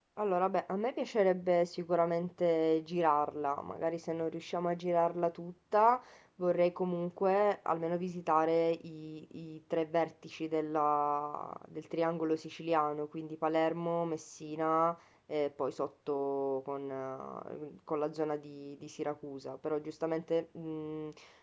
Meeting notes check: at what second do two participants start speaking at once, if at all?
none

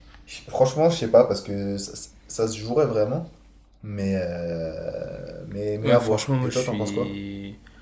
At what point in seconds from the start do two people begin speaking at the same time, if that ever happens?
6 s

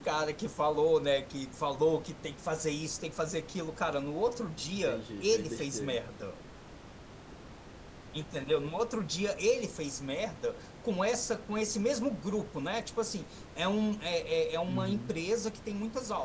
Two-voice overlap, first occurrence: 5 s

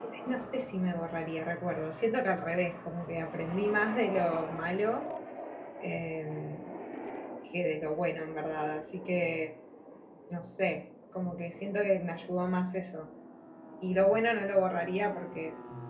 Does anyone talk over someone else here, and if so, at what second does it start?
none

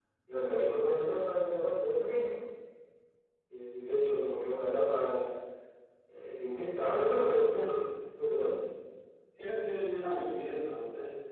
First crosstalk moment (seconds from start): none

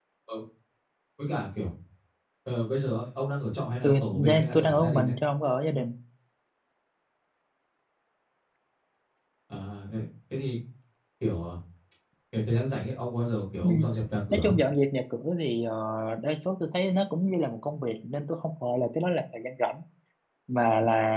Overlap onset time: 4 s

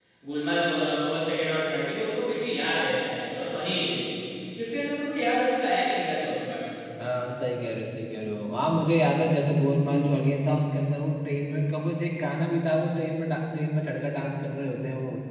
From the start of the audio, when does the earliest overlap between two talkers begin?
none

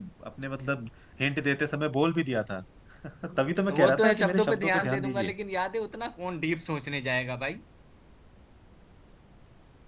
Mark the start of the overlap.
4 s

